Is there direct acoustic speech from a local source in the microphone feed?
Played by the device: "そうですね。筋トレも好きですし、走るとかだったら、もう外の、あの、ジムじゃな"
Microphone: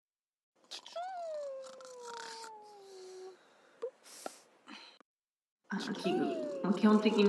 Yes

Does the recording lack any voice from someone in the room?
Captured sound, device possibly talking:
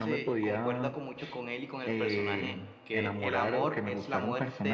No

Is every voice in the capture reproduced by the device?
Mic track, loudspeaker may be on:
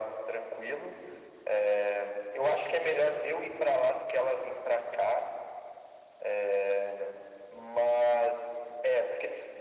Yes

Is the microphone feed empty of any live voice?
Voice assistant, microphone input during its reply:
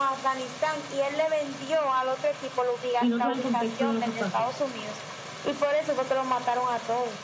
No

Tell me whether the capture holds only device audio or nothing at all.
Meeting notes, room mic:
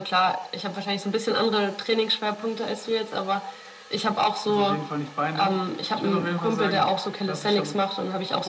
Yes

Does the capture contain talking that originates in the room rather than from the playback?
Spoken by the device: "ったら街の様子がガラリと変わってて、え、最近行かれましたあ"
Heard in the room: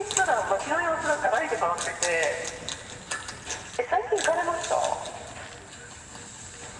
No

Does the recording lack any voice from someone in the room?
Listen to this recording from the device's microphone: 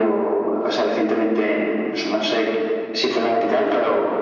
Yes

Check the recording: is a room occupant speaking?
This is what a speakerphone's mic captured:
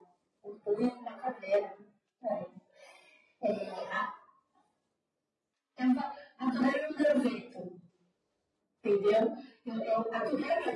No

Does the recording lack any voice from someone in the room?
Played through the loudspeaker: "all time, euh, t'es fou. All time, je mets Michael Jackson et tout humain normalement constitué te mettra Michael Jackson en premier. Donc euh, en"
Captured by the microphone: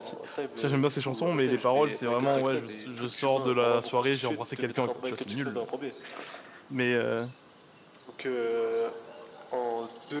No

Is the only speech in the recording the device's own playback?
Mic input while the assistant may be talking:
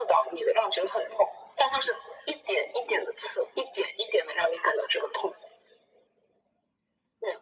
Yes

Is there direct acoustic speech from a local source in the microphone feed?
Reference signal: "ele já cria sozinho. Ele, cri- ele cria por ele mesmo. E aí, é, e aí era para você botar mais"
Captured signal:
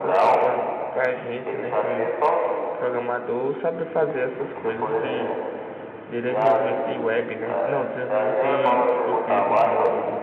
Yes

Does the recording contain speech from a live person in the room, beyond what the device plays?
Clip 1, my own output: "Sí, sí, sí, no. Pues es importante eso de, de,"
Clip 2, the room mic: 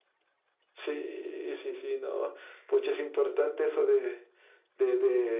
No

